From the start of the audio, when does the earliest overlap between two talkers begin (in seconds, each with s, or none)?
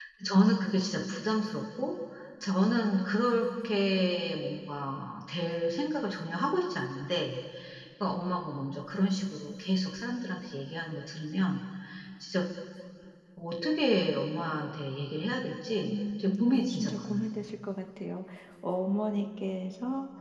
15.8 s